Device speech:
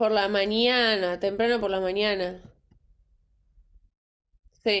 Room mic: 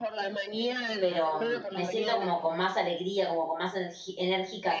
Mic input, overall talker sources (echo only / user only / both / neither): both